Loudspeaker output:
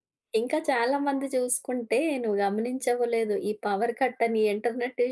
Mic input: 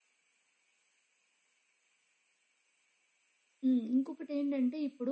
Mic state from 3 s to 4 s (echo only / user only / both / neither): user only